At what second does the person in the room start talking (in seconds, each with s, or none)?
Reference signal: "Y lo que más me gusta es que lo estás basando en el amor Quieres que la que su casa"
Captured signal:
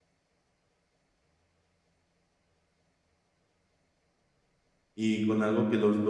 5.0 s